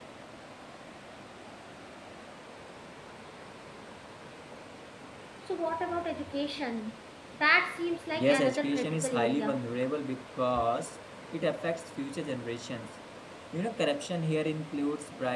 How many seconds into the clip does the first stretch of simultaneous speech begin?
8.2 s

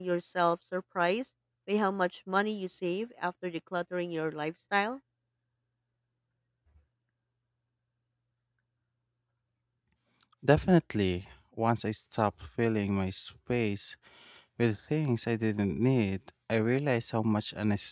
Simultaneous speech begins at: none

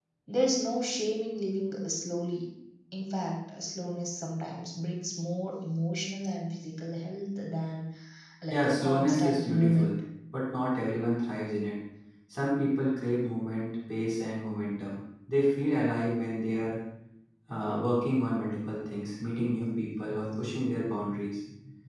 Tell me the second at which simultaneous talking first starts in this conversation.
8.5 s

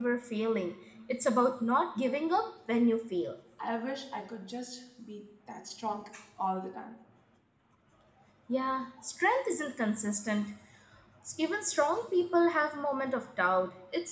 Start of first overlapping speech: none

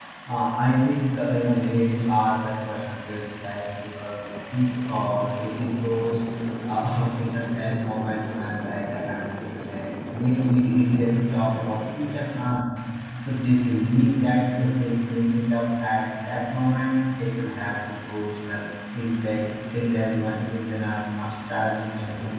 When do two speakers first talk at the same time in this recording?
none

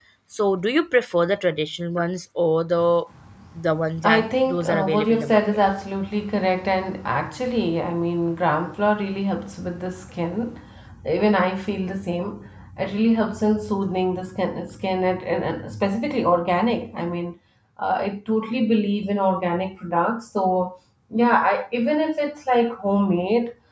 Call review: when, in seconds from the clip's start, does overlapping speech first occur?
4.0 s

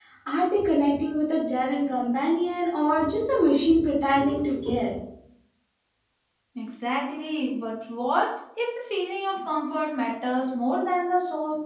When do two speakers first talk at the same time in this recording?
none

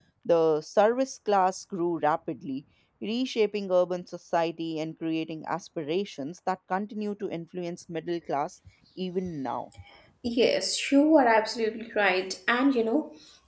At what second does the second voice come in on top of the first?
none

